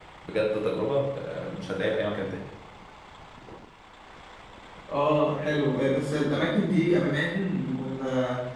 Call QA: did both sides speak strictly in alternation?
Yes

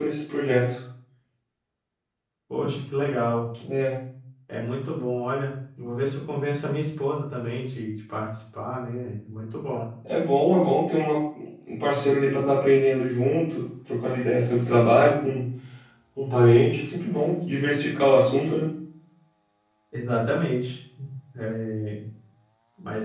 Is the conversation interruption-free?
Yes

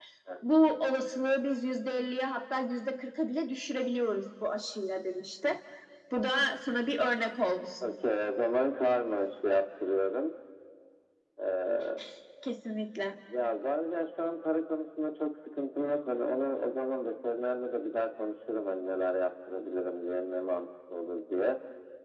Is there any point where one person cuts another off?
No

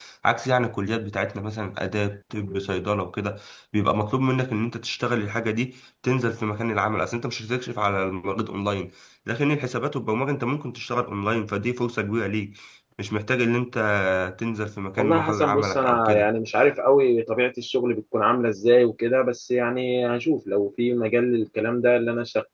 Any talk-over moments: Yes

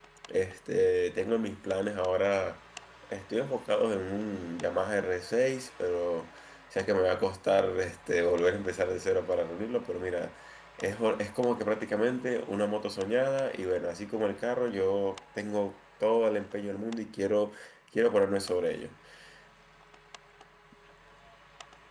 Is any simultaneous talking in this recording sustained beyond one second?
No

